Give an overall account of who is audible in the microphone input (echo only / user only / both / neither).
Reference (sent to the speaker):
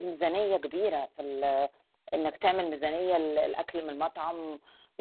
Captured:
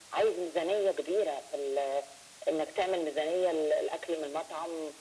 echo only